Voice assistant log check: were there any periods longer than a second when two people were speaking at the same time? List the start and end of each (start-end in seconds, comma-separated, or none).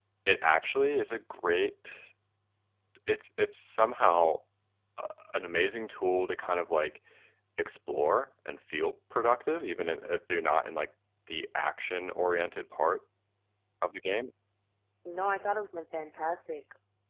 none